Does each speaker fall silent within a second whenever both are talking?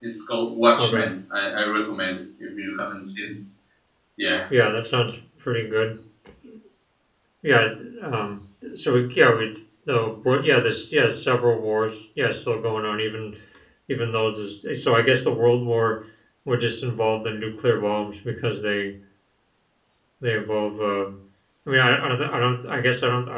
Yes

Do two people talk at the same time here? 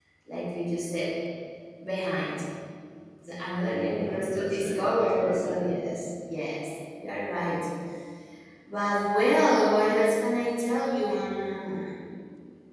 Yes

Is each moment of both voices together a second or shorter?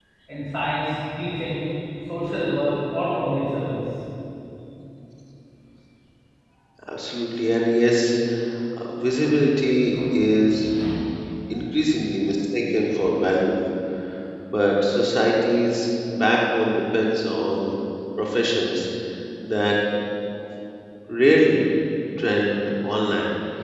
Yes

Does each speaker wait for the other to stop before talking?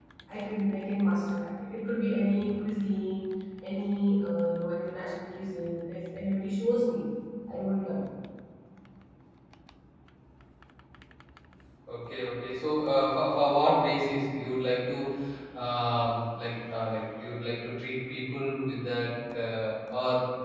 Yes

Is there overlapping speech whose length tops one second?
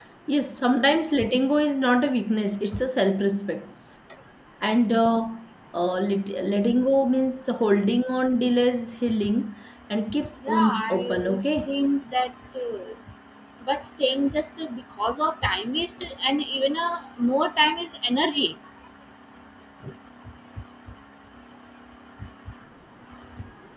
Yes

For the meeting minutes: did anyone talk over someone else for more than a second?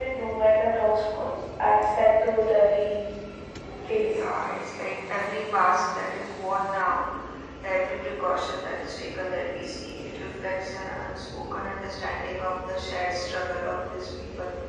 No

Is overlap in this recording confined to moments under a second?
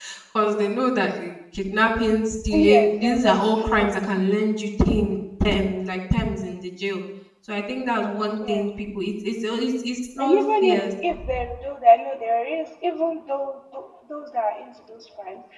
No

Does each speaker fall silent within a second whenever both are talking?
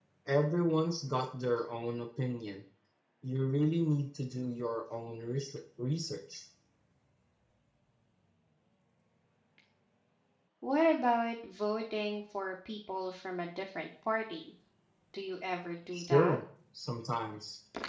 Yes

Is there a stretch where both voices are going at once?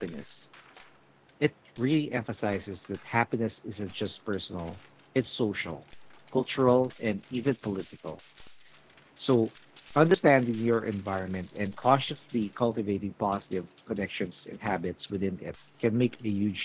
No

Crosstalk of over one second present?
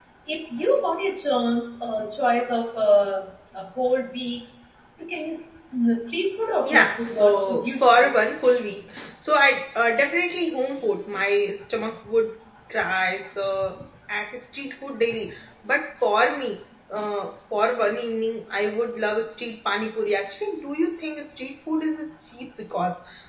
Yes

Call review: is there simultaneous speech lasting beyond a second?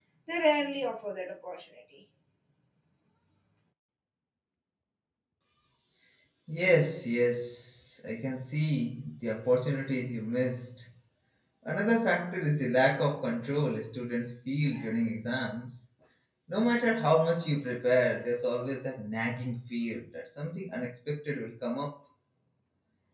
No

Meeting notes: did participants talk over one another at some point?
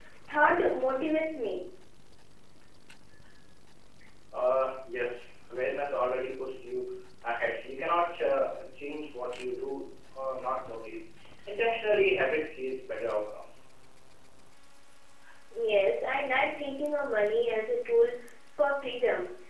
No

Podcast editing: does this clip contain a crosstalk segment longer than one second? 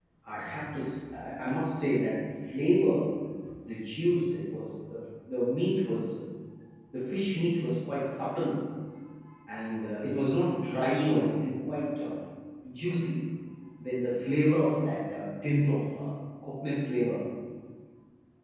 No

